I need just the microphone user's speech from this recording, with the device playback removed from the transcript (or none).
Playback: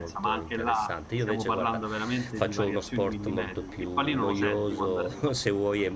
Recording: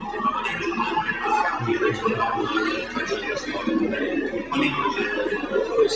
Mh, mh, mh.